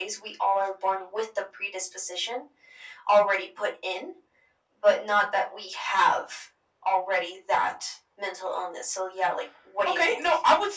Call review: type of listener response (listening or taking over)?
taking over